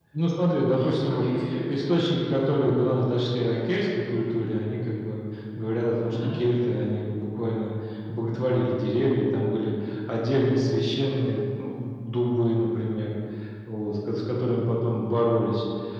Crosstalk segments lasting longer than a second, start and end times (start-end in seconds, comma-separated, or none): none